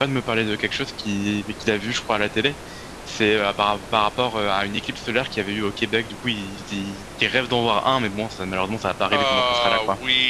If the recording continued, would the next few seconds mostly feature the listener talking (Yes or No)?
Yes